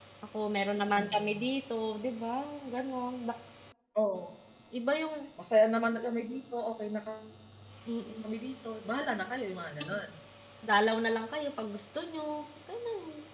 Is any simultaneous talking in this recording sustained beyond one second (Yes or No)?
No